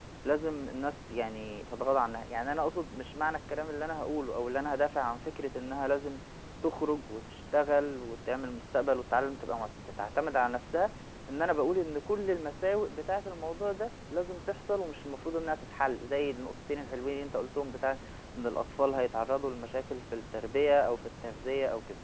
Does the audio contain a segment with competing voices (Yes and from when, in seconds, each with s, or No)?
No